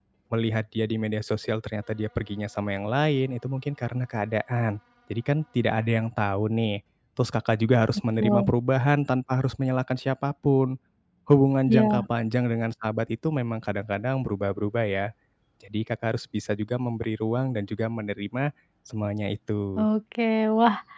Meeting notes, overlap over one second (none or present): none